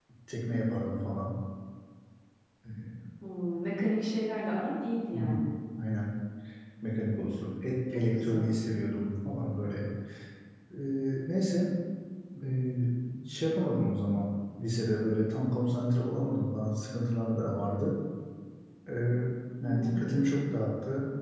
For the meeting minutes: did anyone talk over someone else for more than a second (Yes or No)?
No